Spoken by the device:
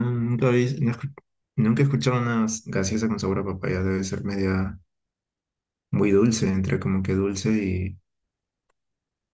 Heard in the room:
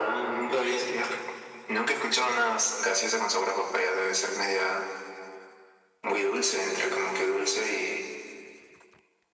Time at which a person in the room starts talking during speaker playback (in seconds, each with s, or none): none